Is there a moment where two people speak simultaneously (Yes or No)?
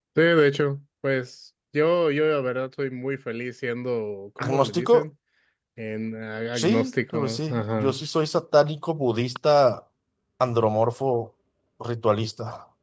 Yes